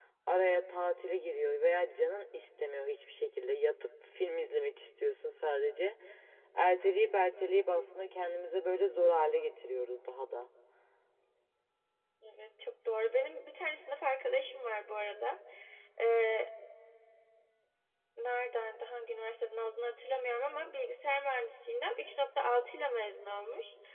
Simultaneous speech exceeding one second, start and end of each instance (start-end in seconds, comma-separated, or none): none